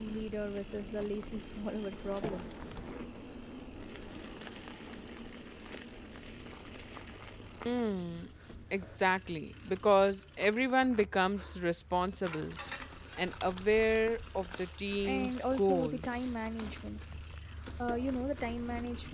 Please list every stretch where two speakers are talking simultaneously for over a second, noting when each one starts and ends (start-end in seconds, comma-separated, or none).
15.0-16.3